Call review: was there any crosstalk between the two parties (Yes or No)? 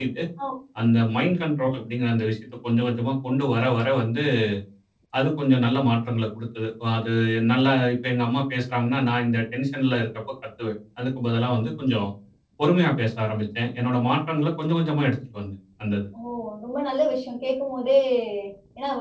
No